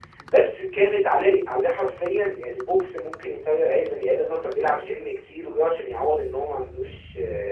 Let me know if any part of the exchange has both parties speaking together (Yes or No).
No